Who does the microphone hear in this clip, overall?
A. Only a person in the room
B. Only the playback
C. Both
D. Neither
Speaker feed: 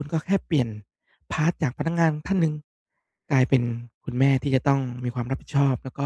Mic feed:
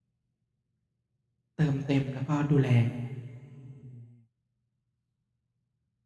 A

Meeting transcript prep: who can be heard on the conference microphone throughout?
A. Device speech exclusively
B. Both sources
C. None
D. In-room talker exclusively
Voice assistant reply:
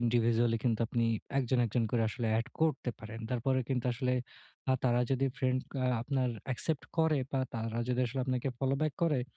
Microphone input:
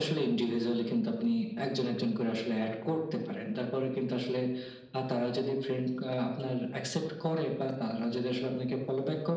A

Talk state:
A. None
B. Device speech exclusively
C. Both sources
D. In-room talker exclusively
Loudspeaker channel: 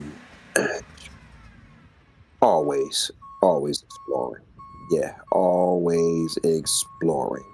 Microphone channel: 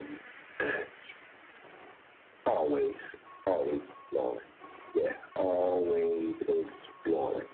B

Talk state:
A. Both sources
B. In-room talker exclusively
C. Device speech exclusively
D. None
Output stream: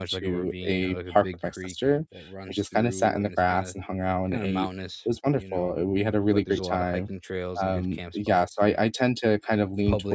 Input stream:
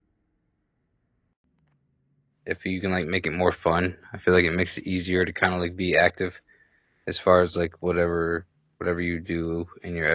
B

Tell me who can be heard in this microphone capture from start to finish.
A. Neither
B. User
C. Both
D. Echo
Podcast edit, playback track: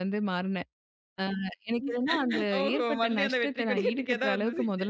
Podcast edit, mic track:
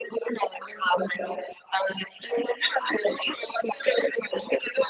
D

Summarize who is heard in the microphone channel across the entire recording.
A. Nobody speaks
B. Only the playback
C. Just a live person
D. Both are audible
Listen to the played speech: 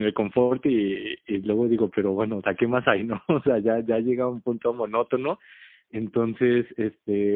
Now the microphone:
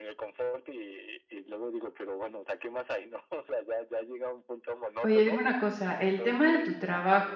D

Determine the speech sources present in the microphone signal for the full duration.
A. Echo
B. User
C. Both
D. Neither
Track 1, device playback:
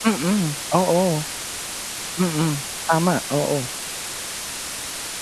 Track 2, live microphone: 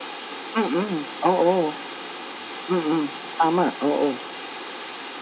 A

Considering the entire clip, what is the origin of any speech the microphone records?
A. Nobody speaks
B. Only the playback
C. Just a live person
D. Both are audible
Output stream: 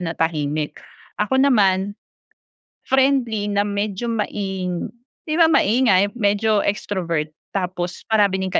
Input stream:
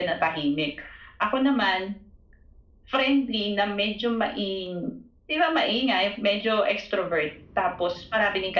B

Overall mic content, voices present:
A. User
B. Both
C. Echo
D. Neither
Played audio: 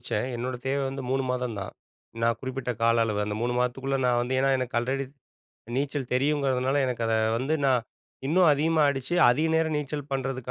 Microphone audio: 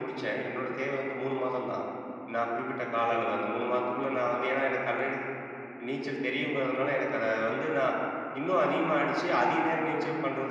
C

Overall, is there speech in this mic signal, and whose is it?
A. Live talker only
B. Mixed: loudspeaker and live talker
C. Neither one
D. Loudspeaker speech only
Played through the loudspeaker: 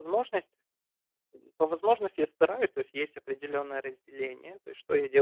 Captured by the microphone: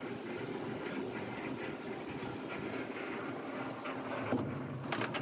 C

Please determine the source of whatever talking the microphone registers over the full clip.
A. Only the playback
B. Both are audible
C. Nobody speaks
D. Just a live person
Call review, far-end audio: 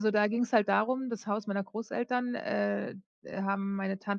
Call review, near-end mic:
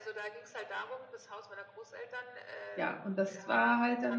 B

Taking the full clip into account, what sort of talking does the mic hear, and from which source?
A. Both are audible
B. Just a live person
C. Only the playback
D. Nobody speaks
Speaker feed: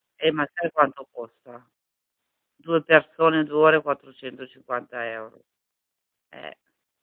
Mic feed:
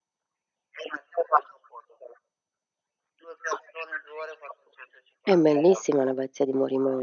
A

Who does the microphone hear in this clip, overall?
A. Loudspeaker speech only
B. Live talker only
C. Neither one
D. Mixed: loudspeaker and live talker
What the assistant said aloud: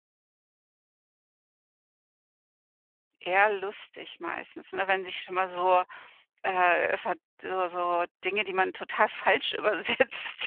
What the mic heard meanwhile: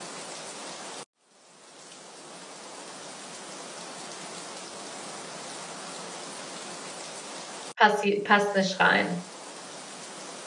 B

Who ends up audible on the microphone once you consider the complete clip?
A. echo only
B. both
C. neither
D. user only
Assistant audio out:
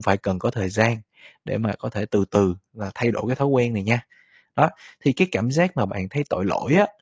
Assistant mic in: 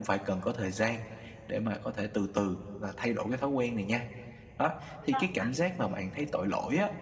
B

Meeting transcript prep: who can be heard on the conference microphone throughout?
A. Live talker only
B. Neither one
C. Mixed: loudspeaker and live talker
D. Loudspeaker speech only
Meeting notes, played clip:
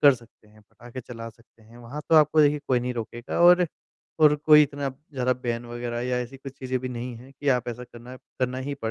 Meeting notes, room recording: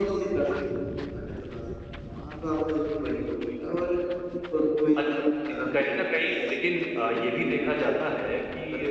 C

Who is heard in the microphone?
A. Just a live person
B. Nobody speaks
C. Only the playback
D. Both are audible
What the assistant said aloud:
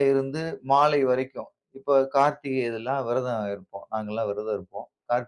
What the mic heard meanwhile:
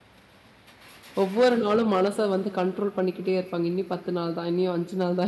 A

